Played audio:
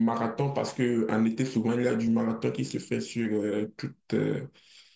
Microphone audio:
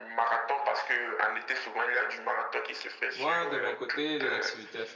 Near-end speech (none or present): present